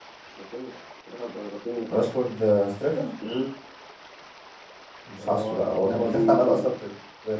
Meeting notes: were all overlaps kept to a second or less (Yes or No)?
No